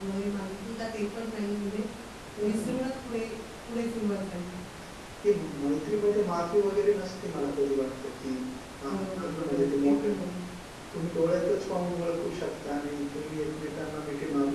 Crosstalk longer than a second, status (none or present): present